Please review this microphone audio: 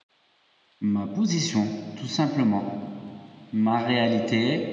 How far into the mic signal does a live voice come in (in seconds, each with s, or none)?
0.8 s